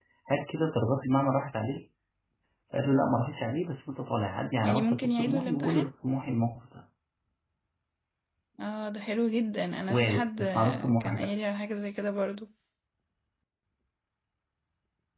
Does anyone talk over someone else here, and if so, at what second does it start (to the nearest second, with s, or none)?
5 s